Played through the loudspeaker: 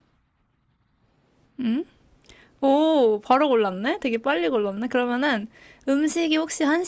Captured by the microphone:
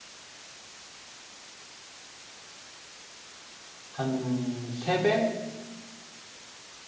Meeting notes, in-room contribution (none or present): present